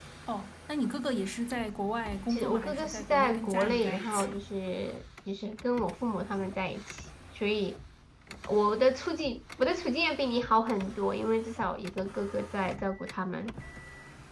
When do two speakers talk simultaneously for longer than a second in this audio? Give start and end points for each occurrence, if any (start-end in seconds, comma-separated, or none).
2.3-4.4